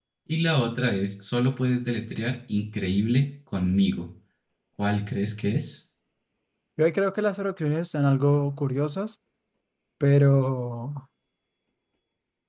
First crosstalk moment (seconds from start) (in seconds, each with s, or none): none